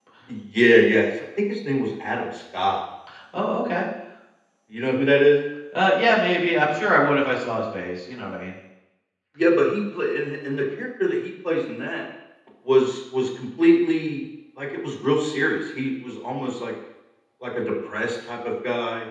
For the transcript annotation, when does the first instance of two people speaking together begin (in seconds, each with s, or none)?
none